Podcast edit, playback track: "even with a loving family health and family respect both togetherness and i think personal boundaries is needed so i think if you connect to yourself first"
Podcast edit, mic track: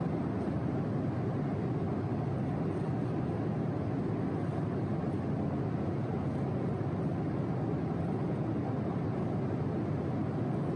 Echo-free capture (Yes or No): Yes